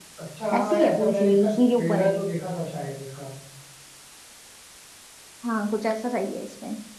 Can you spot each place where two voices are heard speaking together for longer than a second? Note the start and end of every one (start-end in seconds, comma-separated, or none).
0.6-2.2